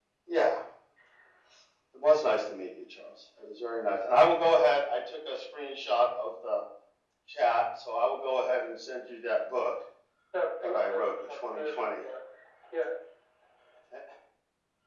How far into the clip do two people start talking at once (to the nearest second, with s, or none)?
11 s